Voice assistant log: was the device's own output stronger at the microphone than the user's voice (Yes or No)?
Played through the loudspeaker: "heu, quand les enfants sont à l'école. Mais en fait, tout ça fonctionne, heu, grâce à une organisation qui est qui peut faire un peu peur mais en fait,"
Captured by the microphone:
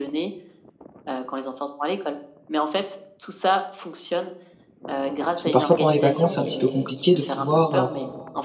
No